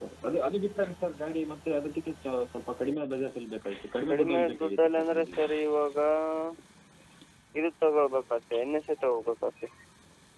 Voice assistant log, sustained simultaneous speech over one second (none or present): present